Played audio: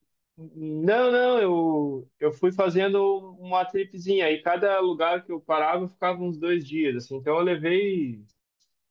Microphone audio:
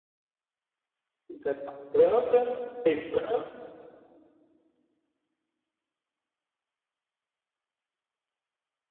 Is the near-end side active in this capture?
Yes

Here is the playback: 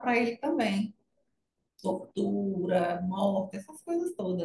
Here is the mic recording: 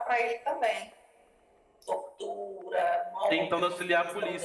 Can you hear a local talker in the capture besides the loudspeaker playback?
Yes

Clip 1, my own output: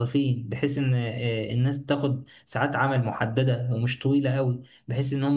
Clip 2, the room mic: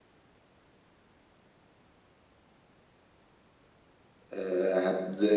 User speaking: Yes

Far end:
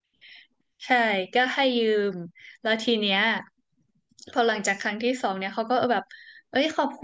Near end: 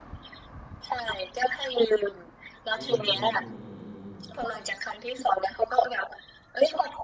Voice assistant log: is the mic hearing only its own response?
No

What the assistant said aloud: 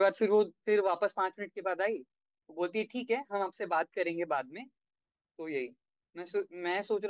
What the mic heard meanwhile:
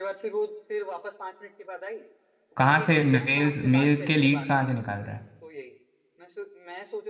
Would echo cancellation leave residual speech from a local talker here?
Yes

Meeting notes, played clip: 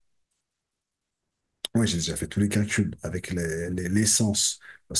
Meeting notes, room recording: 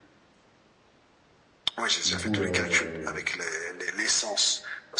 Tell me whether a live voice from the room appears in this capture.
Yes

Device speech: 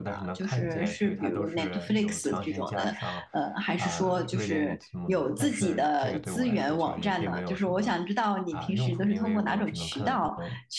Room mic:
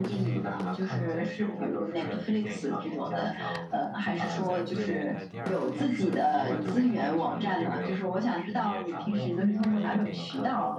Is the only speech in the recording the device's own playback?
No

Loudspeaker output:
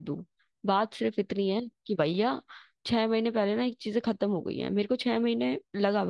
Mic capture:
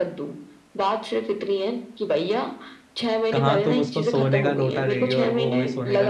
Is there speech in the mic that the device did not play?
Yes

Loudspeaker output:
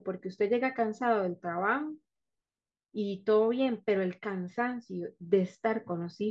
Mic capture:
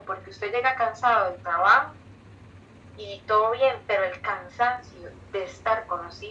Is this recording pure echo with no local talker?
Yes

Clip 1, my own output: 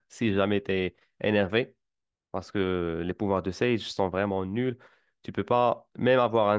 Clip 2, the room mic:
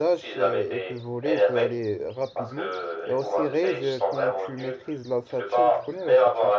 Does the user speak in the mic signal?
Yes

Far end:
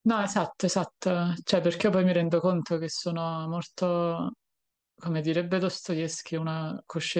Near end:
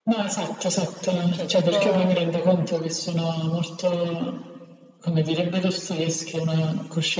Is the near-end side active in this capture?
Yes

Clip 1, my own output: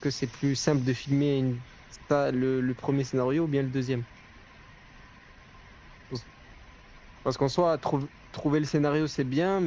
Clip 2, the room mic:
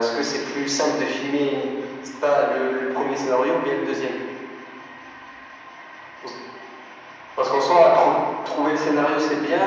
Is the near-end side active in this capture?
No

